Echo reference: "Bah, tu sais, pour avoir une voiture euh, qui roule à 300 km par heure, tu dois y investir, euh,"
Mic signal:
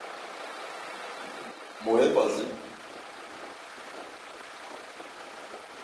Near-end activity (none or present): present